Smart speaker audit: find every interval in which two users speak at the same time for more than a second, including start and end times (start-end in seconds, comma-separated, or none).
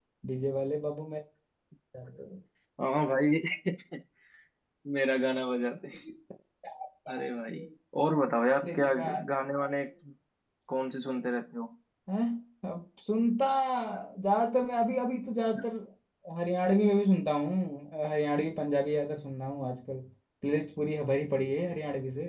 none